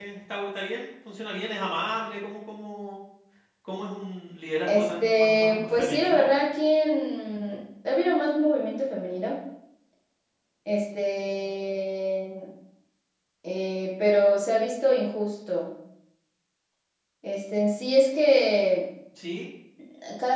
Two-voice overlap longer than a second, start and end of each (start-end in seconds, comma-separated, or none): 4.6-6.3